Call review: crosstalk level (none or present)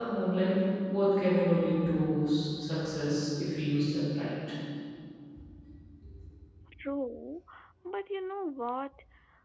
none